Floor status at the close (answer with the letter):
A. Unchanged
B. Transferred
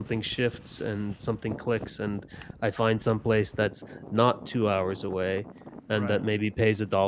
A